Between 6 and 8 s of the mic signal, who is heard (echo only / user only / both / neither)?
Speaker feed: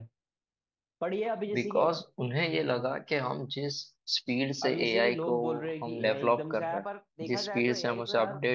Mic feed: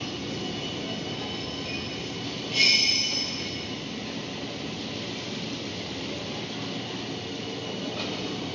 neither